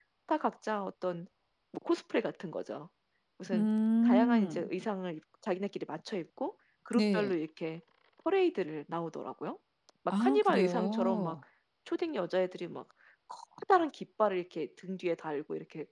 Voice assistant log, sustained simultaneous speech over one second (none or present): present